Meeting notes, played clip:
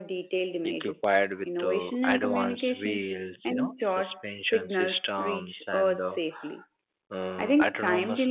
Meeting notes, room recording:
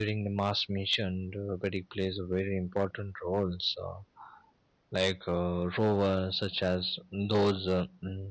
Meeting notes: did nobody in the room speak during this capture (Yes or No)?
No